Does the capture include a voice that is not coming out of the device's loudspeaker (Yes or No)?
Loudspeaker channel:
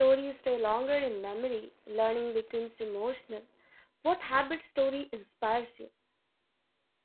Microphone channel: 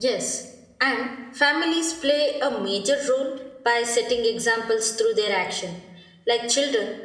Yes